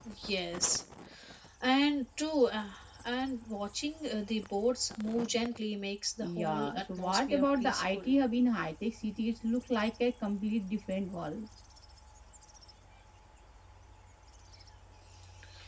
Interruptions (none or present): present